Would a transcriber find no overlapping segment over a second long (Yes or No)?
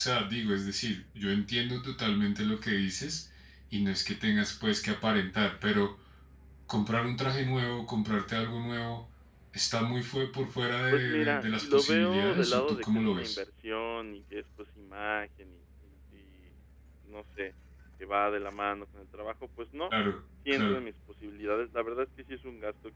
No